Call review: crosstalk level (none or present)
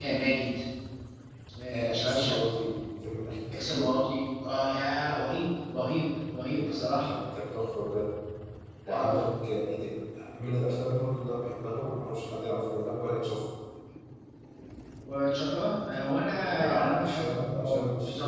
present